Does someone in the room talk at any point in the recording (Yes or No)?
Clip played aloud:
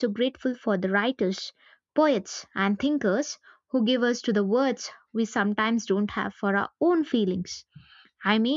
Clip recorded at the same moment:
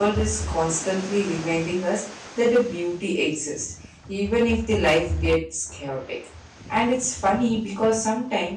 Yes